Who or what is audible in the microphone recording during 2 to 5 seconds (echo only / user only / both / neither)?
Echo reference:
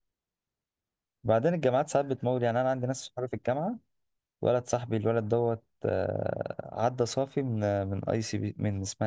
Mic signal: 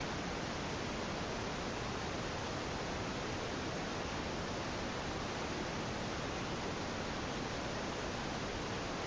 neither